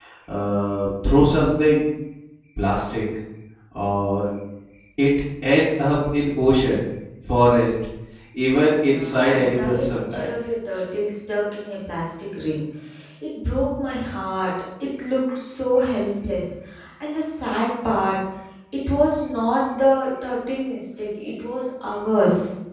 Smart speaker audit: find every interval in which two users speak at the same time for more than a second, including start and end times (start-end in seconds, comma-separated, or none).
8.9-10.3